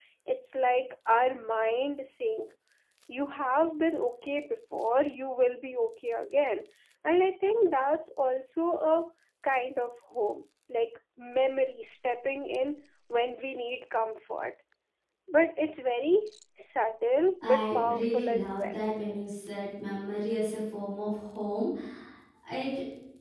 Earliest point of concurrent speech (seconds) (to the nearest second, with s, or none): 17 s